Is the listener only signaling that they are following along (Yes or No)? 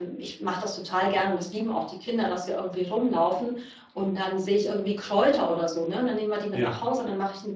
Yes